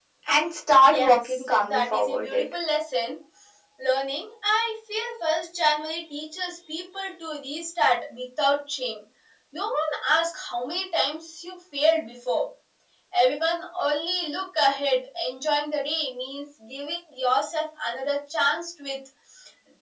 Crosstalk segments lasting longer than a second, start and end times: 0.9-2.4

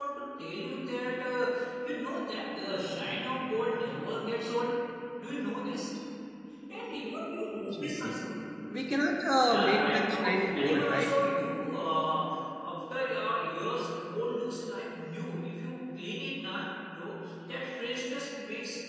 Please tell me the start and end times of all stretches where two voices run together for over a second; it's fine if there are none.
9.4-11.2

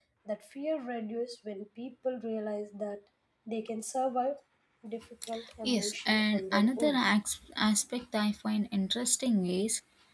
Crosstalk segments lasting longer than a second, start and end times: 5.6-7.0

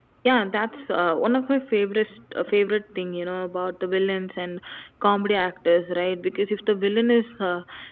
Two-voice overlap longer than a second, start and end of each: none

